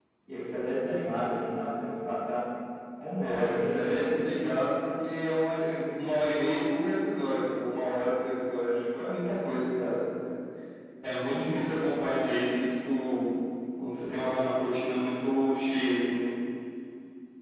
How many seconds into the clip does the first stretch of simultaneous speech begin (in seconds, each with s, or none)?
3.2 s